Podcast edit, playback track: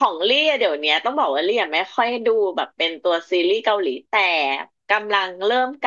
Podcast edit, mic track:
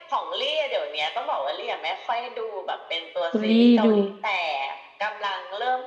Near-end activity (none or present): present